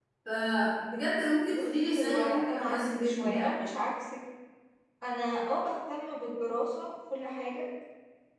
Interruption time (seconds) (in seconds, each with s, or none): 1.5 s